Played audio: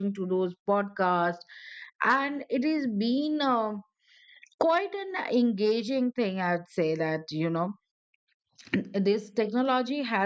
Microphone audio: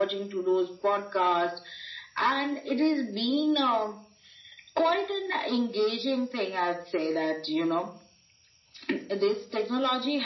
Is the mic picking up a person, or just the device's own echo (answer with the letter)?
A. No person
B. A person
A